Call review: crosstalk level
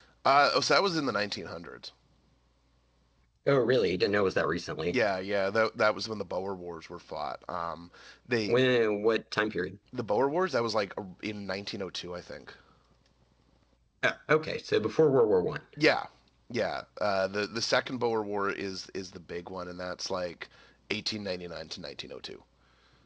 none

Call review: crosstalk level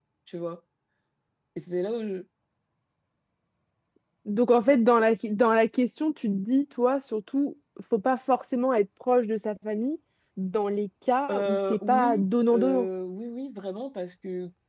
present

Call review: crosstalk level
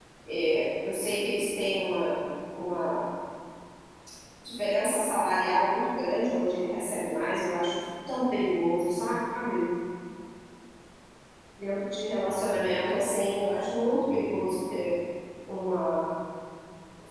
present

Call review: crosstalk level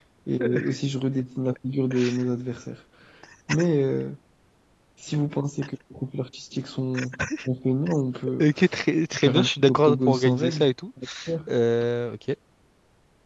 present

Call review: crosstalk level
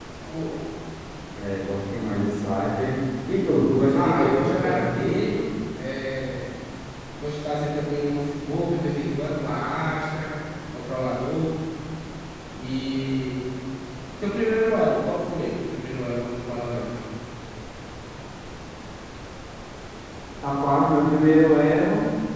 present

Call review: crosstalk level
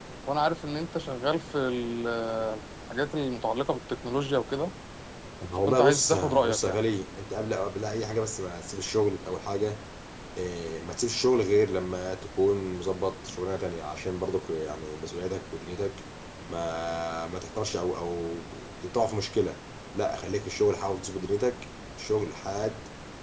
present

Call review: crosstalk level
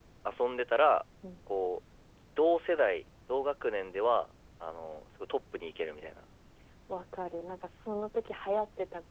none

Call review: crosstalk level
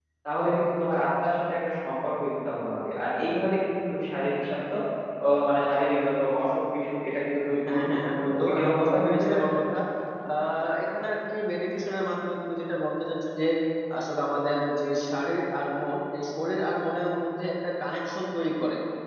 present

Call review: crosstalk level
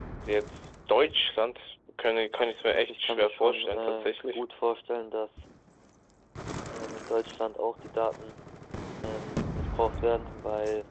present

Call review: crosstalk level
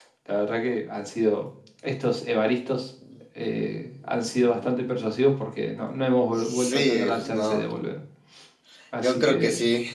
present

